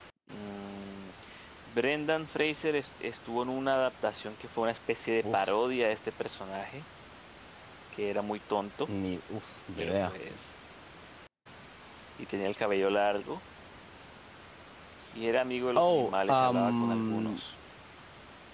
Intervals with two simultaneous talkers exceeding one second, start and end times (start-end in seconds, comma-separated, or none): 15.8-17.4